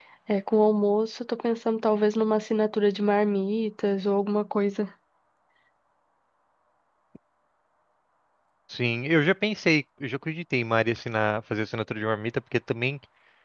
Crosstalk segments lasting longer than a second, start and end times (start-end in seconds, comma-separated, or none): none